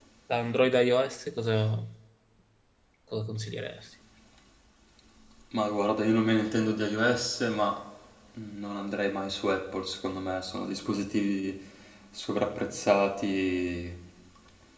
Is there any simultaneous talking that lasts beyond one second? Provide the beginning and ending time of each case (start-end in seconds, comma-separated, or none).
none